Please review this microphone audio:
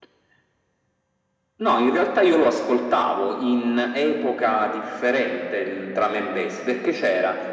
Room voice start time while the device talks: none

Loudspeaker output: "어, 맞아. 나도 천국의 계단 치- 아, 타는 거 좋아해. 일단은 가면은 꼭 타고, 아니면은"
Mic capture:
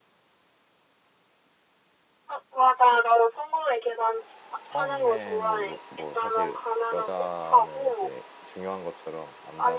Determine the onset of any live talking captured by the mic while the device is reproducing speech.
4.6 s

